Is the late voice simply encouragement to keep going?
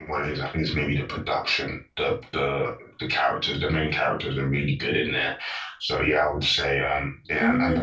No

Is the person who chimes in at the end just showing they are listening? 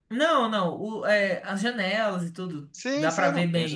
No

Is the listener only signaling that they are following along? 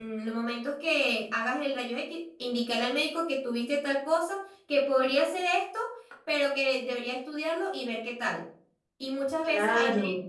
Yes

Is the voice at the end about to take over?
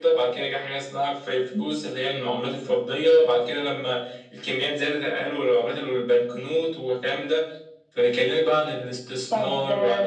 Yes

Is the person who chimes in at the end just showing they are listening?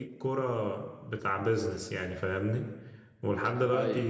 Yes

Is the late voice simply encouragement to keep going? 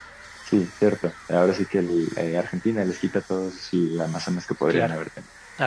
No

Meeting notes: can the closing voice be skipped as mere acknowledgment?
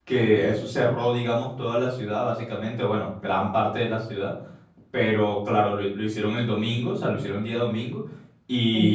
Yes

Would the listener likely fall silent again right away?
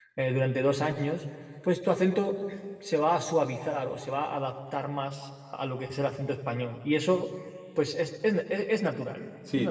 No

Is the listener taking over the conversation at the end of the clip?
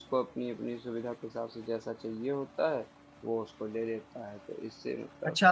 Yes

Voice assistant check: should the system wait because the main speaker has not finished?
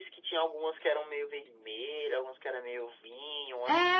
No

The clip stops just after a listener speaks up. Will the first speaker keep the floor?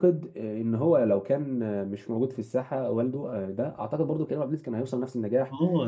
No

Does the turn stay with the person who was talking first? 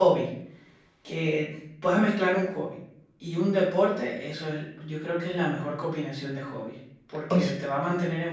Yes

